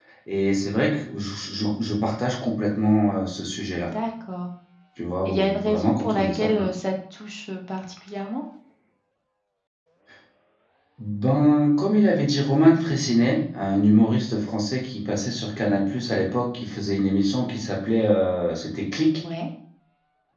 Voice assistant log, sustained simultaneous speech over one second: present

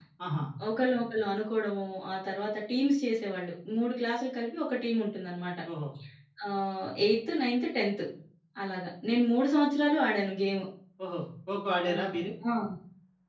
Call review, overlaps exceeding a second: none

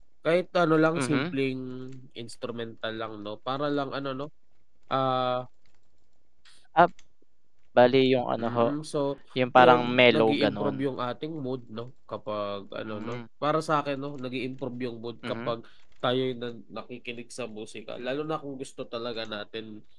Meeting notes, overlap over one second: present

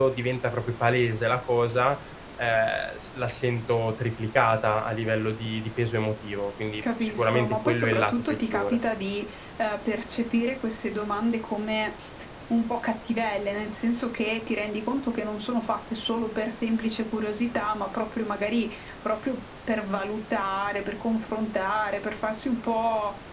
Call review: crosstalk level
present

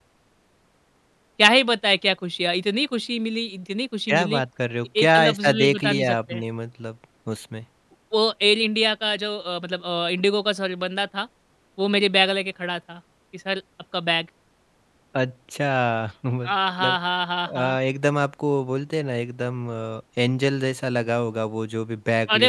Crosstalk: present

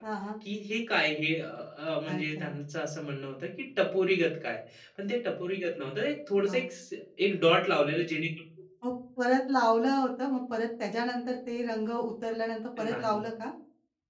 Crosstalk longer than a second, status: none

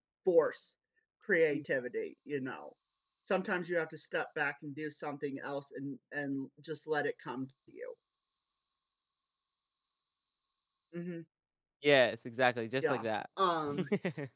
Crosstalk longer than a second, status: none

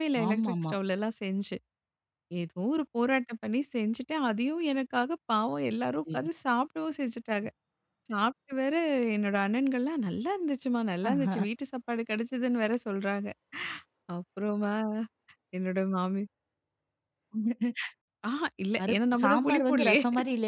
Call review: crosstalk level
present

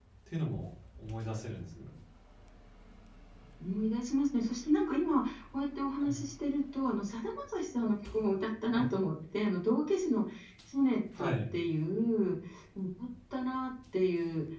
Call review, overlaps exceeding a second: none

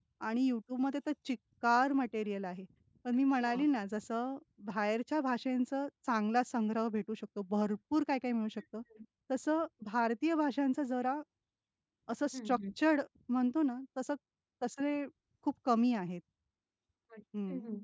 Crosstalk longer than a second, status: none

